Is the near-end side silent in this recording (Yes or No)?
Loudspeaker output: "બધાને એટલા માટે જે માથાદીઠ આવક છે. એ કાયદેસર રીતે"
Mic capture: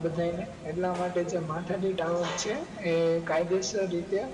Yes